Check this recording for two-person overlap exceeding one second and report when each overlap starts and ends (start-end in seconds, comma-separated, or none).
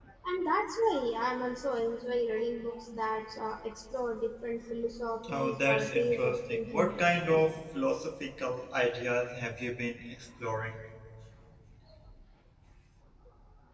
5.3-7.0